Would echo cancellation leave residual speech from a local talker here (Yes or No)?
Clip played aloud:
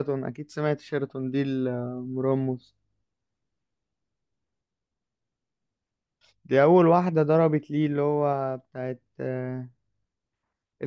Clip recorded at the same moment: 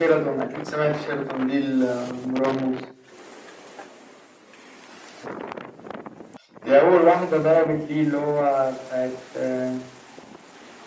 No